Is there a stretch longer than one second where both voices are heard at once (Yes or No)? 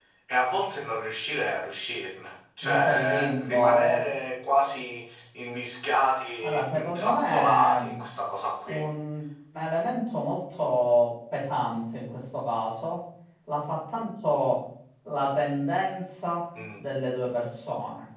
Yes